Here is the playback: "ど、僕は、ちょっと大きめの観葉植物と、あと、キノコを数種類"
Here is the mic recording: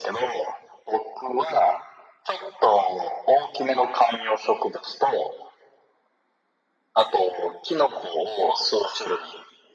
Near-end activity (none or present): none